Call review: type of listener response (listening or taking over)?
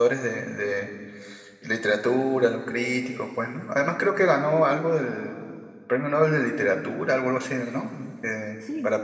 taking over